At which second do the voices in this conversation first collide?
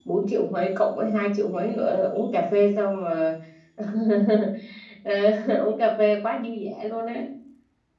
none

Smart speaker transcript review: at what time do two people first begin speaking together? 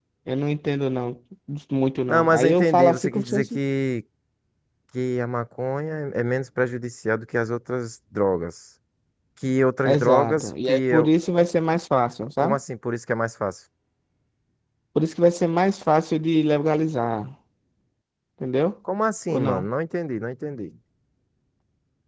2 s

